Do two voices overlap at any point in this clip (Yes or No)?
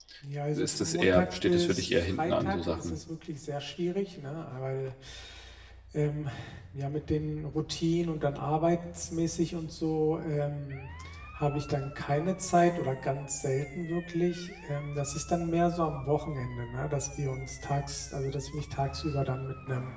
Yes